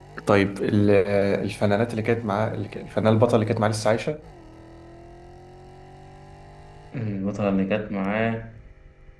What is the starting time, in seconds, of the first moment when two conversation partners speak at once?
none

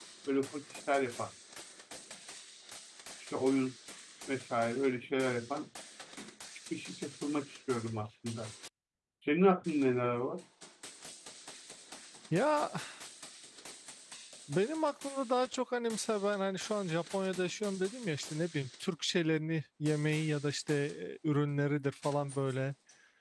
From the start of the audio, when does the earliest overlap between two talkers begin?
none

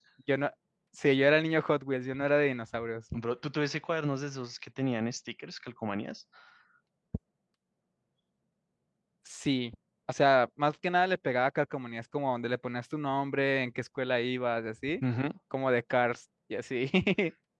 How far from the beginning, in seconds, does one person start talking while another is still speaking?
none

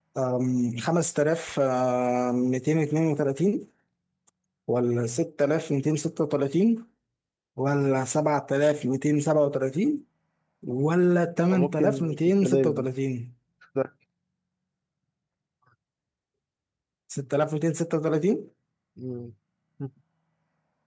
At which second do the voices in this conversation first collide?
11.5 s

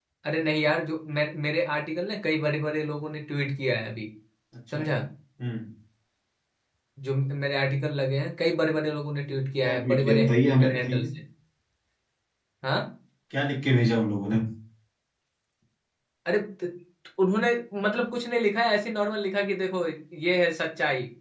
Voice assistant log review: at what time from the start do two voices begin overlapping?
9.6 s

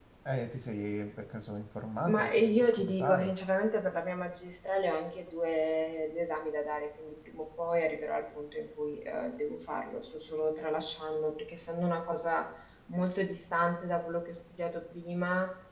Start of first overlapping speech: 2.0 s

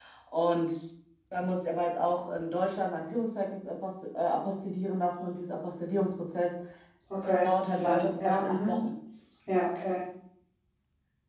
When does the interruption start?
7.4 s

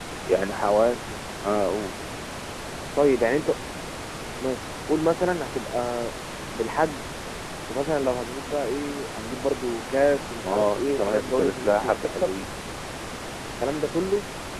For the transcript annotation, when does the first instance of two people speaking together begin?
10.4 s

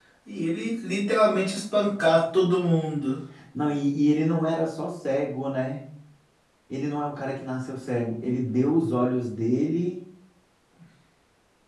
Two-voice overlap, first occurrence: none

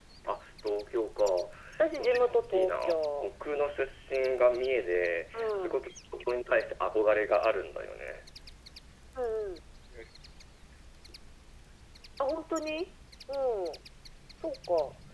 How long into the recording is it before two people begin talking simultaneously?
2.0 s

